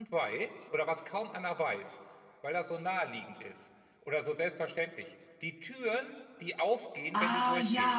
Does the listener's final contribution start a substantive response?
Yes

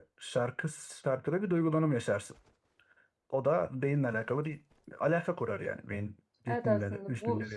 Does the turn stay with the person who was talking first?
No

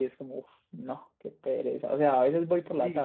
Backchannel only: No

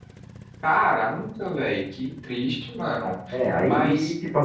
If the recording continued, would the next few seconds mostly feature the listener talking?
Yes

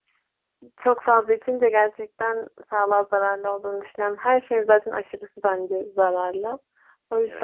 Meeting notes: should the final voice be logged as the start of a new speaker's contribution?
No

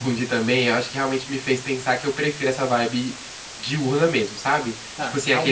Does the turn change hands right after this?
No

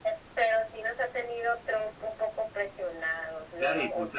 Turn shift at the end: Yes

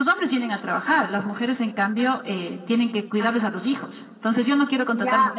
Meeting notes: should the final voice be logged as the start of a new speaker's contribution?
Yes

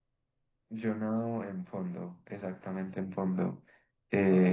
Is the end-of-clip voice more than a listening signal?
No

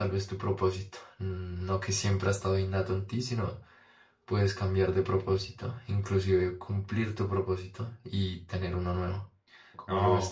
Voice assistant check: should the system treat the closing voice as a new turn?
Yes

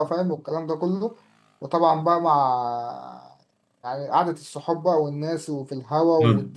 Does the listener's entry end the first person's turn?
Yes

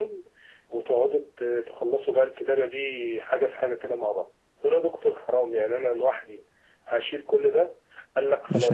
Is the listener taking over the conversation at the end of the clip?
No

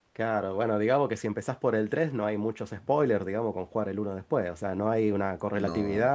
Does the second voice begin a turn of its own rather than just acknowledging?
No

